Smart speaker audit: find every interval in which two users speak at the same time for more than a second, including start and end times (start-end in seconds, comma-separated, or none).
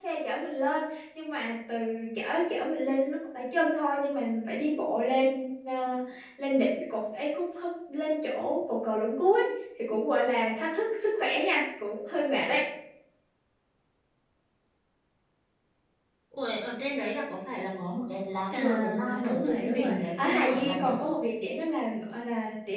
18.6-20.9